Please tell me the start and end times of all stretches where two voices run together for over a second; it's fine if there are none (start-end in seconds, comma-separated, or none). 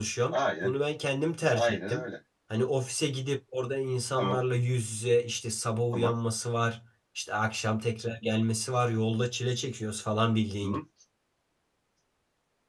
none